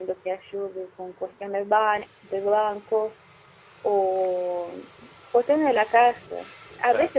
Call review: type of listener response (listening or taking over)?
listening